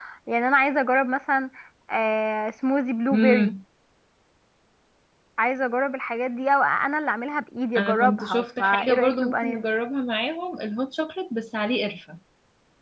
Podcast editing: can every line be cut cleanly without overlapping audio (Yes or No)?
No